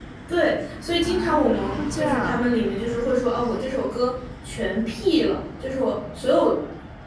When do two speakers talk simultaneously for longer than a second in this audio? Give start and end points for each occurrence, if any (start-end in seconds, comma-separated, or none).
1.0-2.4